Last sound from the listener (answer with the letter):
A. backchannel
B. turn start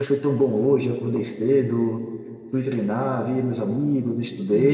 A